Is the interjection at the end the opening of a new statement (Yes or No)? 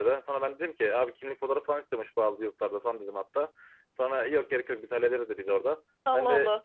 No